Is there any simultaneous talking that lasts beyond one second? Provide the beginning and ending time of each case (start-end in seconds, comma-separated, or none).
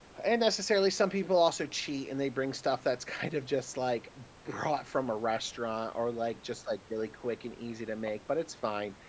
none